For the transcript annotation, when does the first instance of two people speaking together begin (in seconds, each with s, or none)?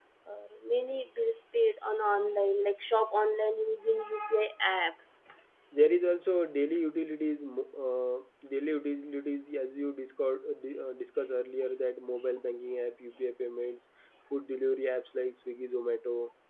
none